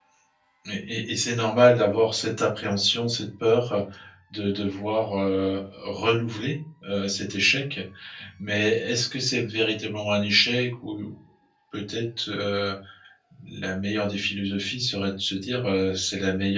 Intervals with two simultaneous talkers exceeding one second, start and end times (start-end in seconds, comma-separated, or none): none